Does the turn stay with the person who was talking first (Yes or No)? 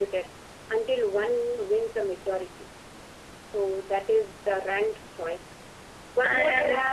Yes